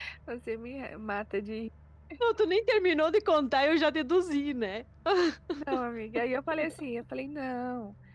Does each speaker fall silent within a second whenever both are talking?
Yes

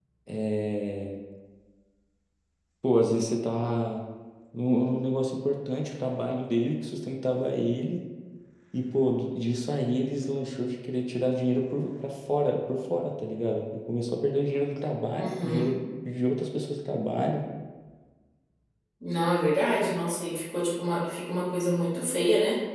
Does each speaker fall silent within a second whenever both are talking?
Yes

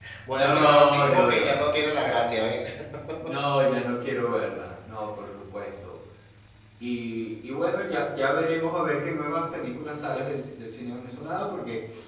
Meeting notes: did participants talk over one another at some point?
Yes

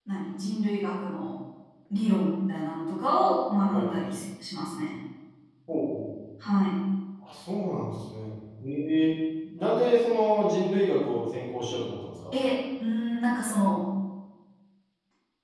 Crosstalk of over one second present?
No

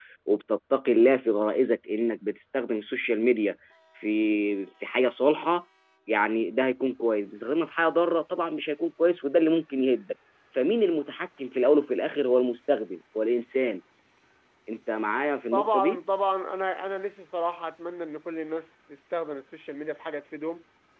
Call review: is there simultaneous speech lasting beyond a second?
No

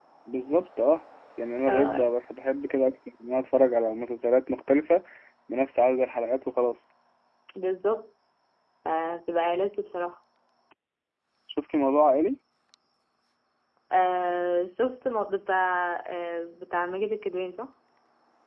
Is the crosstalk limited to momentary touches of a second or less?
Yes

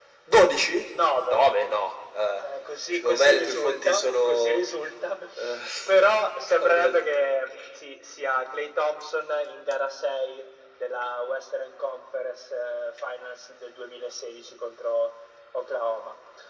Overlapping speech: Yes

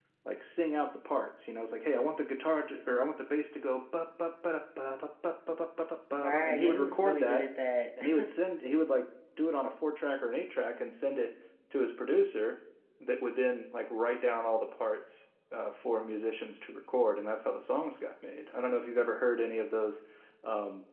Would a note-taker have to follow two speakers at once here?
Yes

